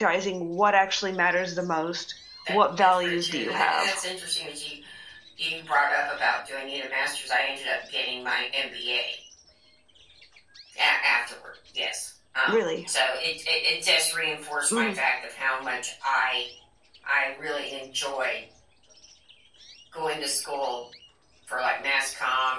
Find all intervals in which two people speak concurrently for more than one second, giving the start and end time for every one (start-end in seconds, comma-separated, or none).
2.5-3.9